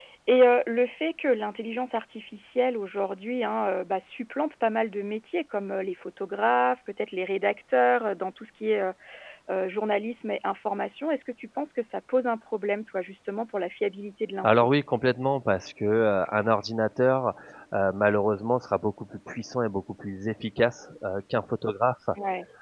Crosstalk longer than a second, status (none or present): none